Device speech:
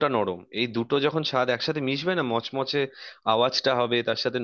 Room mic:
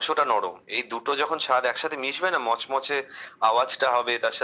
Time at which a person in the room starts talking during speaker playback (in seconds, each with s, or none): none